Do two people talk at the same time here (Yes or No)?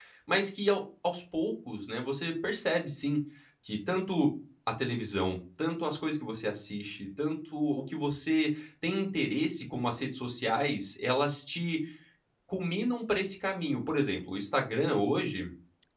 No